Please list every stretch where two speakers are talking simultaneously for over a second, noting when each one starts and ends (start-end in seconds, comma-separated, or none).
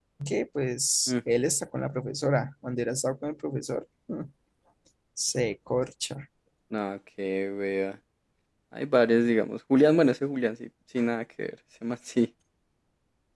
none